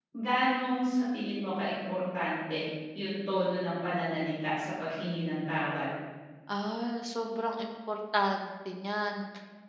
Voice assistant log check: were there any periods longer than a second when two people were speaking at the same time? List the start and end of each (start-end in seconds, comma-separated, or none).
none